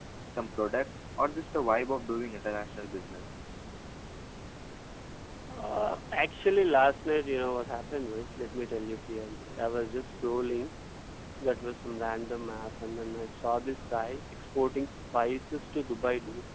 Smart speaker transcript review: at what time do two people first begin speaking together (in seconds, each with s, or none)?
none